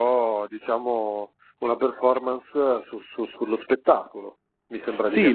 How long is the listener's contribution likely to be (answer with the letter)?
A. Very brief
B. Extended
B